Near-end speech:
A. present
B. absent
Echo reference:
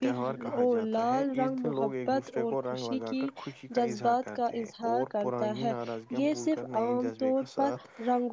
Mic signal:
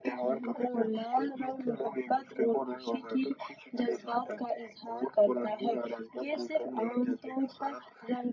B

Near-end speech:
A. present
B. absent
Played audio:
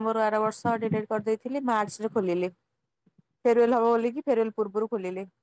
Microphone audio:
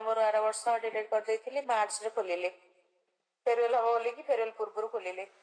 B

